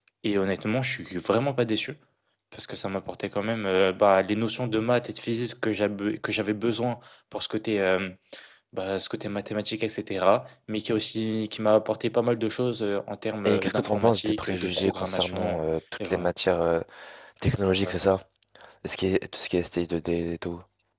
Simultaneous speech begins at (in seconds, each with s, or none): 13.4 s